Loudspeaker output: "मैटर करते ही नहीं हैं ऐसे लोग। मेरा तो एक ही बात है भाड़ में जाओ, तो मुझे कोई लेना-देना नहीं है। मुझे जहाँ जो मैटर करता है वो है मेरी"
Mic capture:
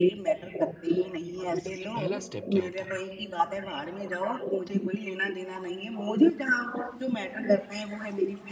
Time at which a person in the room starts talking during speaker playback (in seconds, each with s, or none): 1.2 s